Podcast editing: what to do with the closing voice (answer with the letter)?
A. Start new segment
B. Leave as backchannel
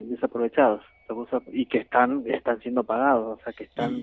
A